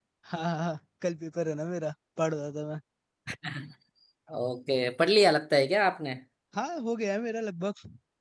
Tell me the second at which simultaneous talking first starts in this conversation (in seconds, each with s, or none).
none